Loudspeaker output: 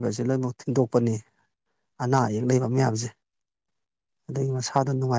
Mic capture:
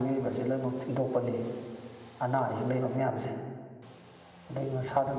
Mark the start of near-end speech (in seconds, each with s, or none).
none